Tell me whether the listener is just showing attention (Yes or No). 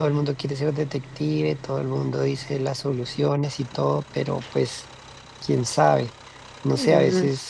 Yes